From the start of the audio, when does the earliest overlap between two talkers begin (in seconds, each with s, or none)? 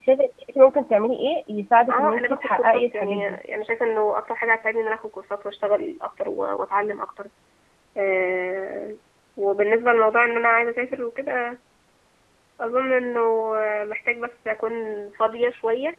1.9 s